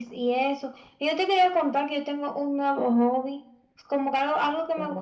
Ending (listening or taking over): listening